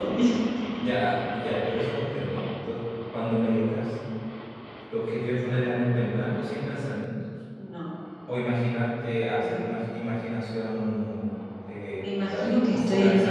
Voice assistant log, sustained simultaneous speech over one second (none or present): present